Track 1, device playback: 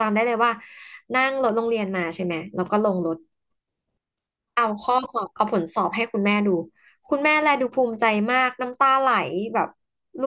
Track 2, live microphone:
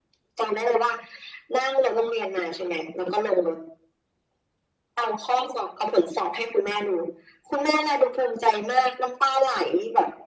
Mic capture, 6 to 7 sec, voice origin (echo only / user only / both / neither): echo only